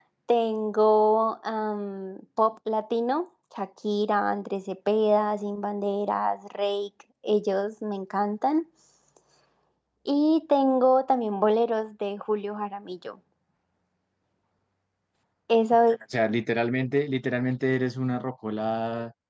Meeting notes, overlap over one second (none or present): none